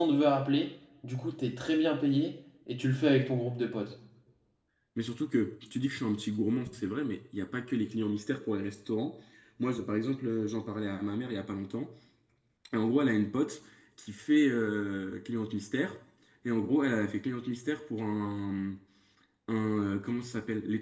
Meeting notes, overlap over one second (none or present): none